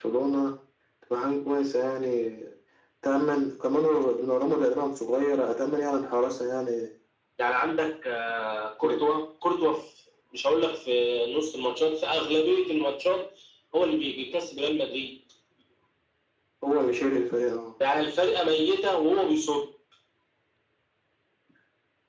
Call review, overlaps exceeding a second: none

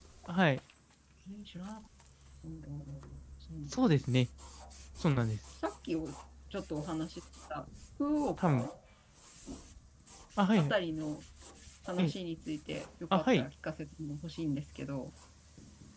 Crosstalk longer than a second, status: none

